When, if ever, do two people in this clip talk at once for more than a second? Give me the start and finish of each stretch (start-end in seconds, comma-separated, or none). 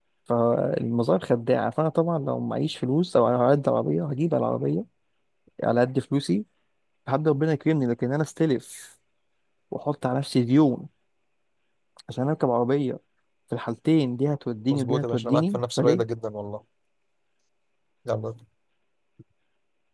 14.7-16.0